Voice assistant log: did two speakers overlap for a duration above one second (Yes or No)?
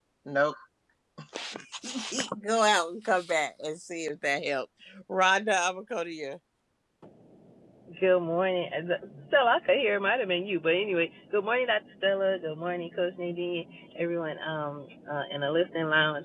No